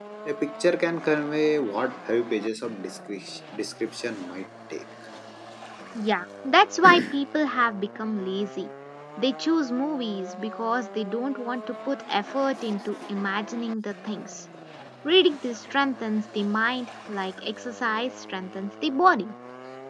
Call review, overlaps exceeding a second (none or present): none